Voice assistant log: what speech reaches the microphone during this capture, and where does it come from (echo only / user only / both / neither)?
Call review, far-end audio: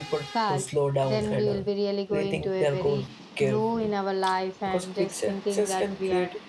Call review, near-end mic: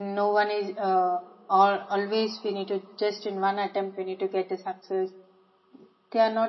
user only